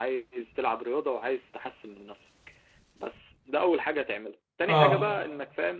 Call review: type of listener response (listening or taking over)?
listening